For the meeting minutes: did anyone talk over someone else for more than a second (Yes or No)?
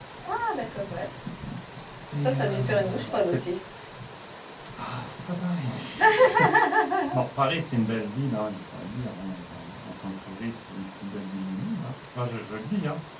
Yes